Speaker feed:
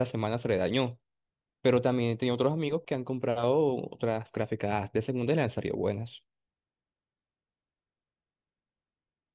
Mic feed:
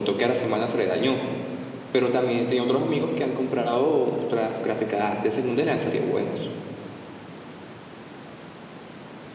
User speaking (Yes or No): No